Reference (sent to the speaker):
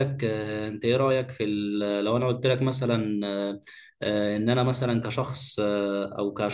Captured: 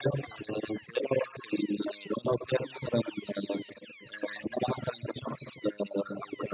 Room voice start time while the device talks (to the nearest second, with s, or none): none